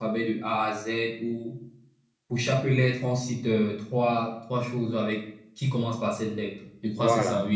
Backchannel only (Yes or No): No